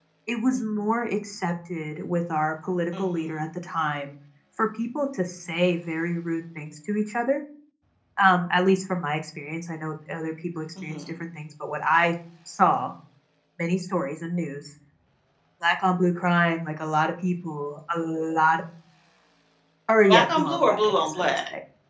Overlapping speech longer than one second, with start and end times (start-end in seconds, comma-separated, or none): 20.1-21.3